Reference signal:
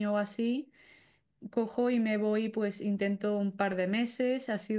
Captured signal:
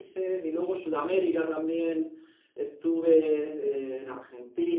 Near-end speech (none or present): present